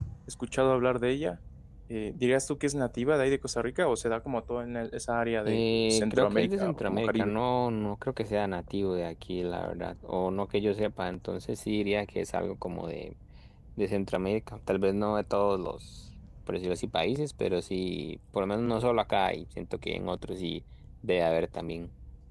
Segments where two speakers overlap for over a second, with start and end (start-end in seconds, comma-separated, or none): 5.4-7.3